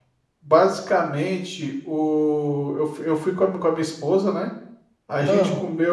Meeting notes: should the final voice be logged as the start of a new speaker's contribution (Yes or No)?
No